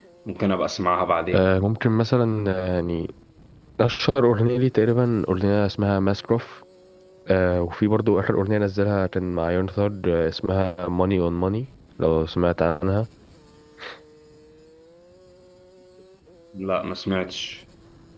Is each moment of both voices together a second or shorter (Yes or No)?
Yes